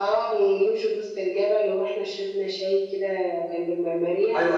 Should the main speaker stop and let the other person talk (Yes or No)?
Yes